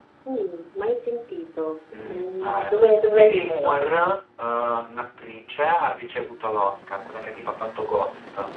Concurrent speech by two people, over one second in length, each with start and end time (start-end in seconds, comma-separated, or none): 2.0-3.8